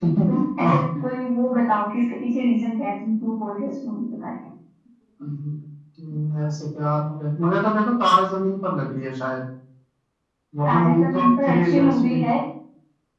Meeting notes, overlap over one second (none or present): present